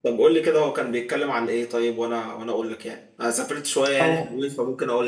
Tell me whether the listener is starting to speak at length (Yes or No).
No